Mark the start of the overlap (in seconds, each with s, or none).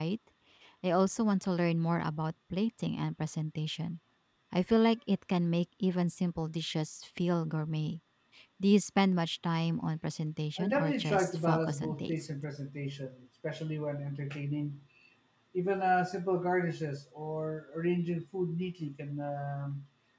10.6 s